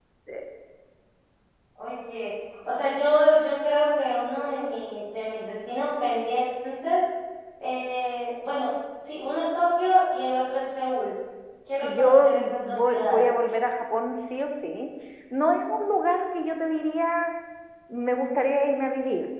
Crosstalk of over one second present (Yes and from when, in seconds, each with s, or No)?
Yes, from 11.8 s